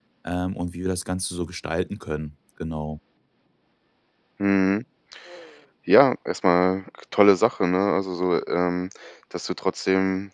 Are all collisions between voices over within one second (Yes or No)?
Yes